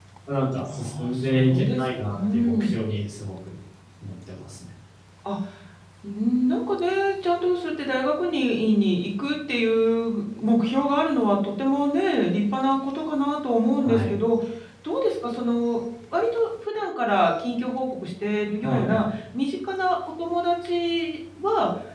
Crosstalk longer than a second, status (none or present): present